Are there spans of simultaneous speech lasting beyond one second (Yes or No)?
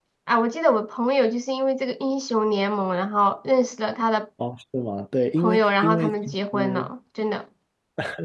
Yes